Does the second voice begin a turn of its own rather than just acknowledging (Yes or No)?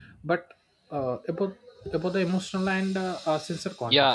Yes